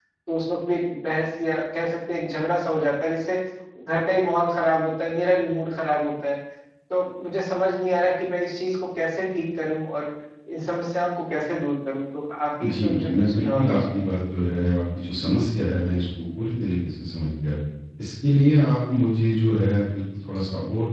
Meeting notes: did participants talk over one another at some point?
Yes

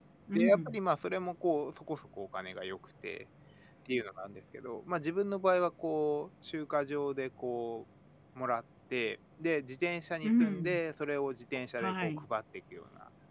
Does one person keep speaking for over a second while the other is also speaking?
No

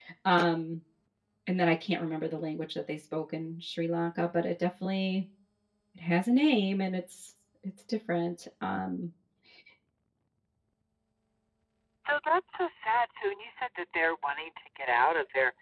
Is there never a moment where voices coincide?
Yes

